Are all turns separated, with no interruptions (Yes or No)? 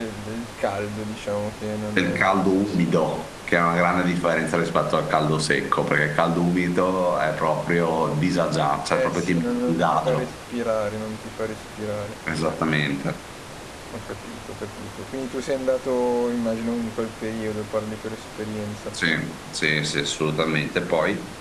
No